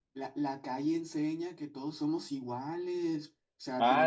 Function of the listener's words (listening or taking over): taking over